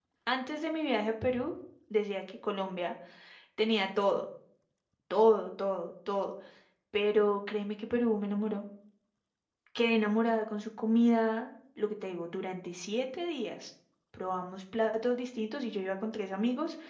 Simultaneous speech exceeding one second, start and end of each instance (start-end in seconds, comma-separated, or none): none